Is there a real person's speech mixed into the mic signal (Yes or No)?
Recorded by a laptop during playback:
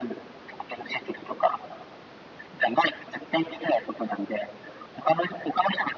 No